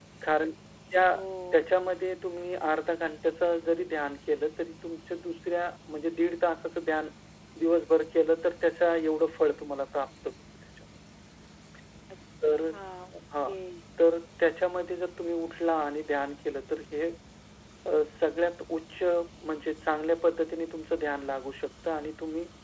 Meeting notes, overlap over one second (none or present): none